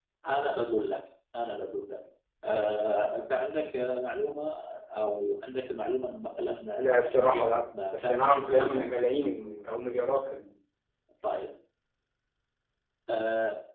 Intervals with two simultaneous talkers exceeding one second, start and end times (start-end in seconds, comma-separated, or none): 6.7-8.9